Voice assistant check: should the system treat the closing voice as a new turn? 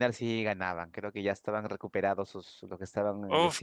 Yes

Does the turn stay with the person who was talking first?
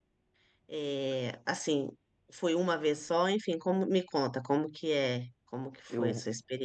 No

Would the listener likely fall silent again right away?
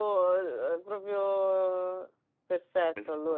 No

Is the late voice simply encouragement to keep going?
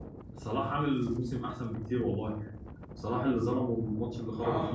No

